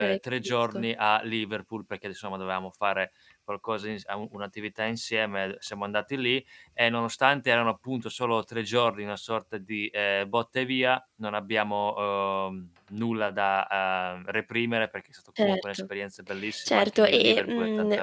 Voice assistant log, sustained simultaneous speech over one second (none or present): present